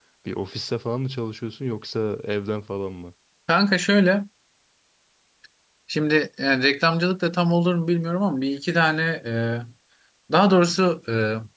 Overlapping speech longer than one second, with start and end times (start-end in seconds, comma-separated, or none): none